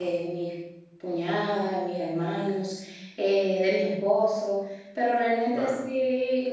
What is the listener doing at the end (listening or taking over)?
listening